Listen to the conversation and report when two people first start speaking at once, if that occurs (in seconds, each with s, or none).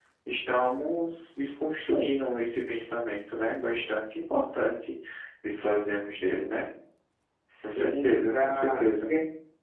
7.6 s